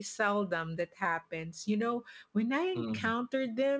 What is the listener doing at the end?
listening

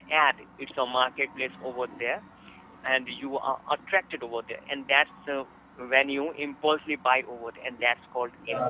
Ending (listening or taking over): taking over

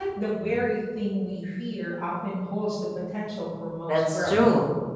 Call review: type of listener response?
taking over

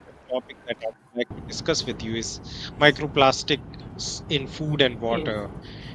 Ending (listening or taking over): listening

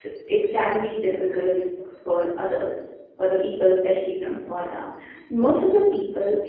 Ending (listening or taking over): listening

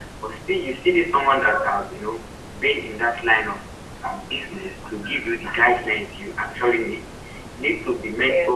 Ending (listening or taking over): listening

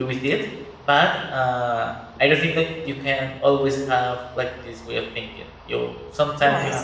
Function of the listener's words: listening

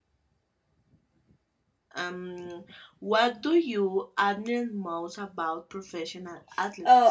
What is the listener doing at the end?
taking over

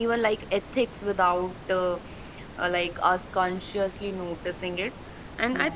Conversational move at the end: listening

